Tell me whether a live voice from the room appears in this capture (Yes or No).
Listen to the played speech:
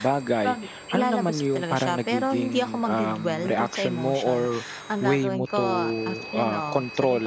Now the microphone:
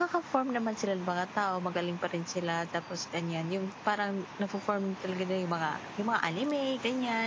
Yes